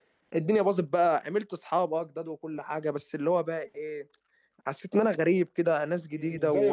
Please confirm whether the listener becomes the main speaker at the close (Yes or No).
Yes